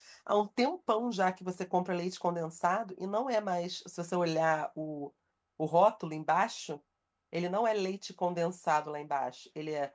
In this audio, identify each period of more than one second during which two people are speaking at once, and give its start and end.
none

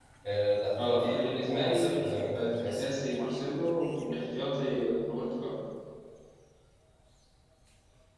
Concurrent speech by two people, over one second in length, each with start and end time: 0.8-2.8

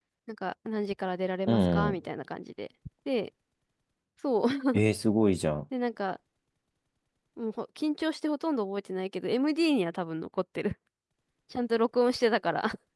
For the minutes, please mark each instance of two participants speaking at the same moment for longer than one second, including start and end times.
none

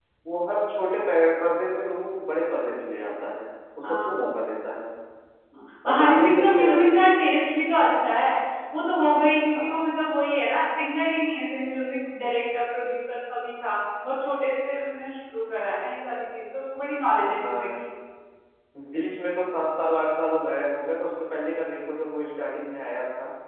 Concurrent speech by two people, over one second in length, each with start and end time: 5.8-7.2

